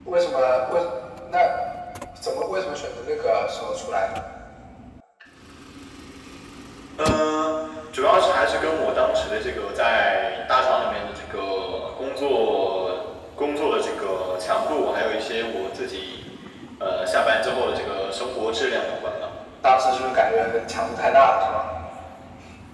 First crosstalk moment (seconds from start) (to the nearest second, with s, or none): none